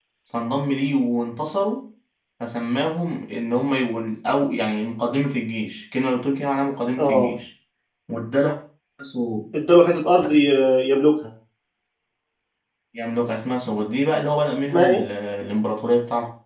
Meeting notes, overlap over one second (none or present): none